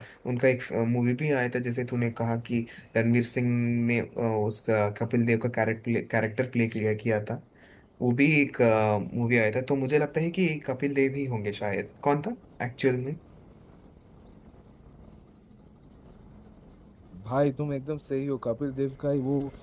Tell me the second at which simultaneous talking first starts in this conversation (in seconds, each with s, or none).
none